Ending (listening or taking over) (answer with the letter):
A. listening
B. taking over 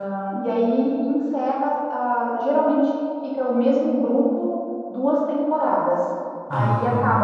A